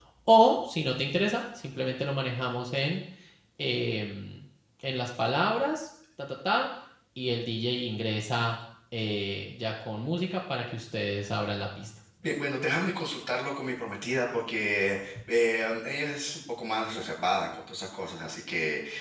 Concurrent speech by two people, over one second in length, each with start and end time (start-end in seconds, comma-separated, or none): none